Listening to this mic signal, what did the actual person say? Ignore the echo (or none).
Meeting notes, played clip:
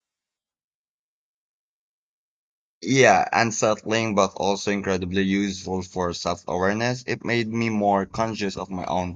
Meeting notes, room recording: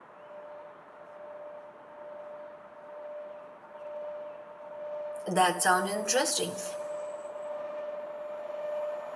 That sounds interesting.